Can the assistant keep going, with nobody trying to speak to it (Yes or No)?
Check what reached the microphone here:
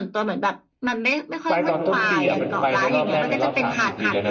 No